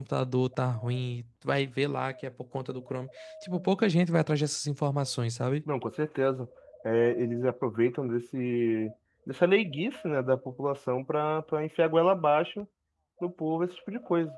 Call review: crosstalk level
none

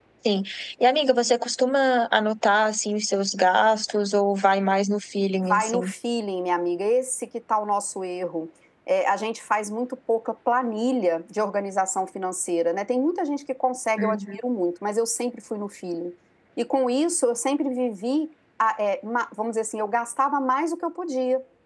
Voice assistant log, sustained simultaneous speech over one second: none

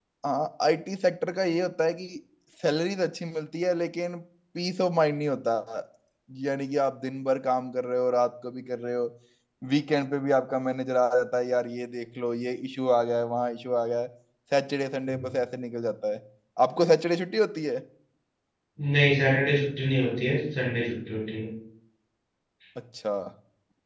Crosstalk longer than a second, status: none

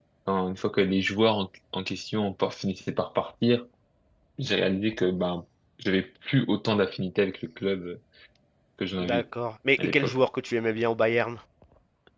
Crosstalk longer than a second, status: none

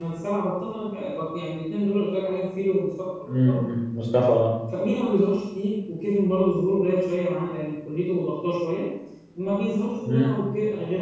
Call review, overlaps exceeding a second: none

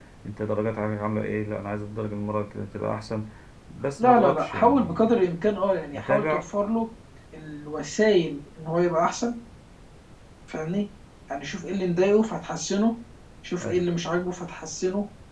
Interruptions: present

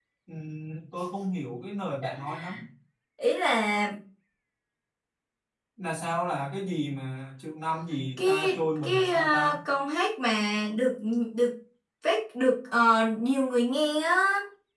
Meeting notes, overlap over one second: present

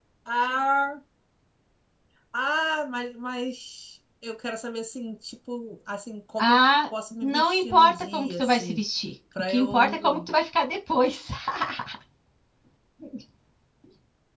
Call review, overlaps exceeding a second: present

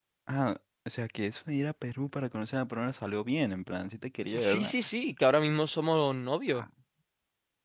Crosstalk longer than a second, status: none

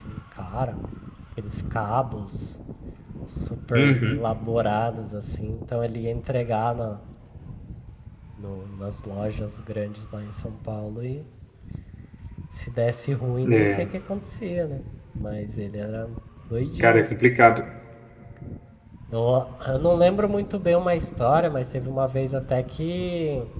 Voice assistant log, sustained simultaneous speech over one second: none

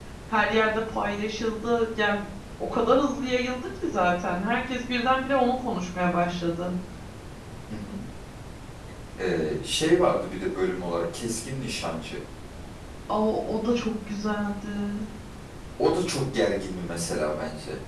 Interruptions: none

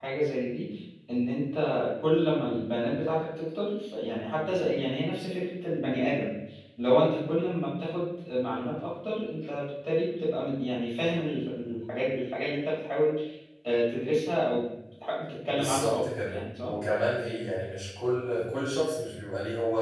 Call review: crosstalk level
present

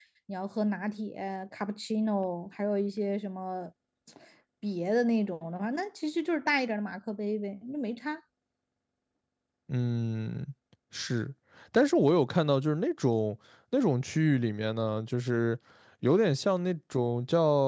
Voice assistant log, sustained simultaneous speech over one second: none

